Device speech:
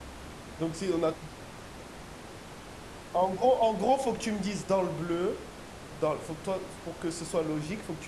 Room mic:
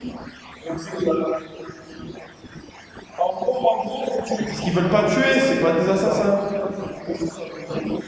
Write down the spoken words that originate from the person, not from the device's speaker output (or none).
Mais Parce qu'ils veulent pas tuer, c'est pas des assassins.